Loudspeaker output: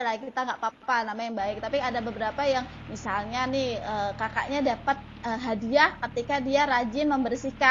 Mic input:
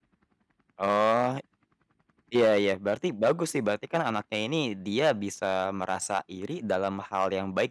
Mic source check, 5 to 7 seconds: user only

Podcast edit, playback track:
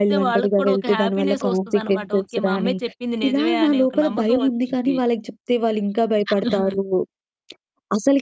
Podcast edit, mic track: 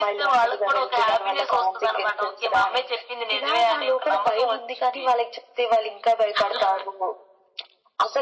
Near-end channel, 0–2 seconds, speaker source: echo only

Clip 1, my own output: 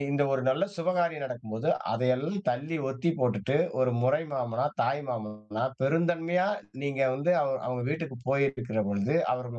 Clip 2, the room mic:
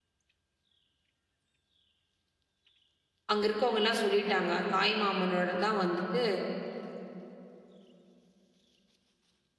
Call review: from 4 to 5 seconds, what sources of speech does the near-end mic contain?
user only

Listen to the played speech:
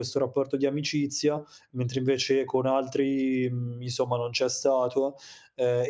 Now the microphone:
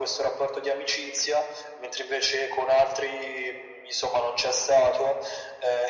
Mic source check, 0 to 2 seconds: echo only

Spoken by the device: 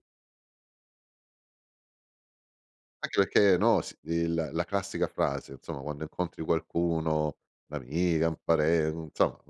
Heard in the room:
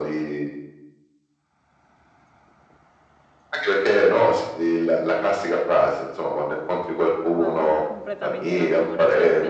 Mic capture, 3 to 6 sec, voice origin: echo only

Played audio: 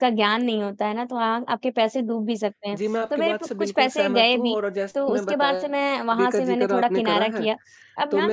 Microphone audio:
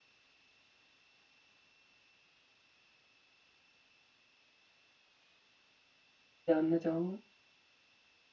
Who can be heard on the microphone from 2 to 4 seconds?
neither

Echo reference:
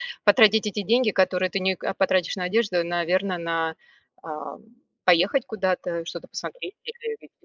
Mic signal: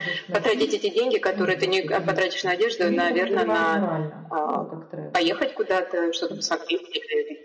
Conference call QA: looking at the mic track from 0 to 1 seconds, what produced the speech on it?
both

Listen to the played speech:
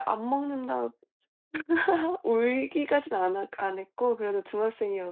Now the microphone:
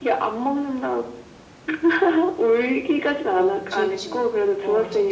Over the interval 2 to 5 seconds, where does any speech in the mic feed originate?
both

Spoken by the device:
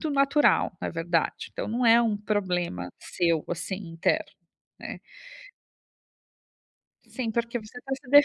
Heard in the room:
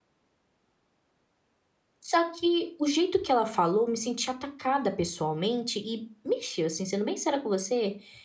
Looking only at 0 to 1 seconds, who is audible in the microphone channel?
neither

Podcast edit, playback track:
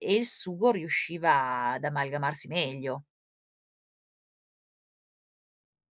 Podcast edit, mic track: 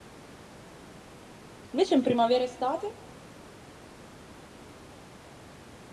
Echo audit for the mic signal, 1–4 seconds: user only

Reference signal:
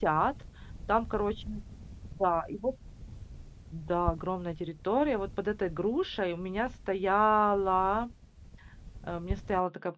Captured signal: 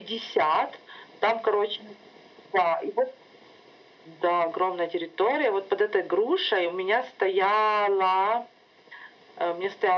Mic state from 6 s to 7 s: echo only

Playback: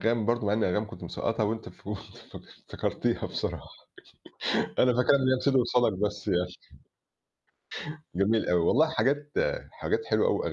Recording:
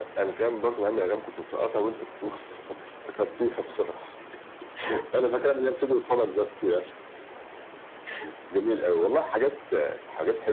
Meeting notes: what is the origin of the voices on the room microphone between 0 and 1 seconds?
echo only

